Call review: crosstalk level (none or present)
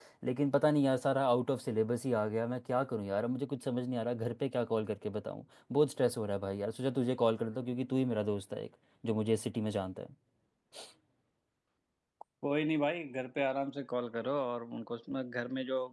none